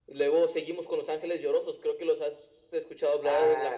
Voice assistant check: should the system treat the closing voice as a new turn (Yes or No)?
Yes